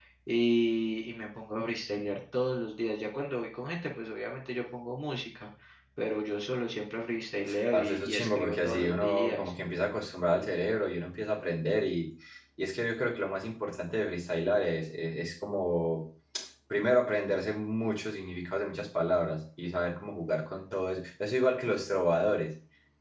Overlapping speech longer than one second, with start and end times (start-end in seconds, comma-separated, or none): 7.7-9.5